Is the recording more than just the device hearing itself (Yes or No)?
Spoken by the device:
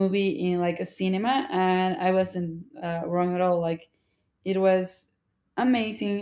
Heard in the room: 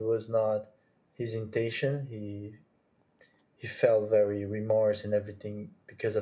Yes